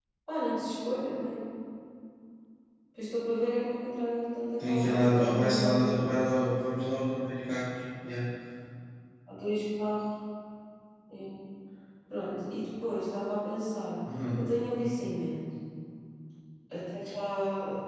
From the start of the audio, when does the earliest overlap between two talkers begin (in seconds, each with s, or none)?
4.6 s